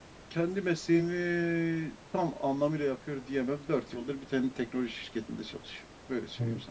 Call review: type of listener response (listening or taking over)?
taking over